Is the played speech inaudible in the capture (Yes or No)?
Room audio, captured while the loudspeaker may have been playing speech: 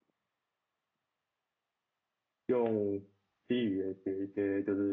Yes